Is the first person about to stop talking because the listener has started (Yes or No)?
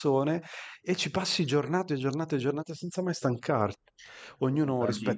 No